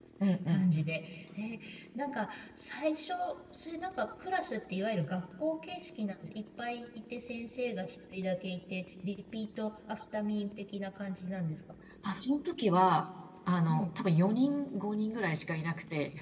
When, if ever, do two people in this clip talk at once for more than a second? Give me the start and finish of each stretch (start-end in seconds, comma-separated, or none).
none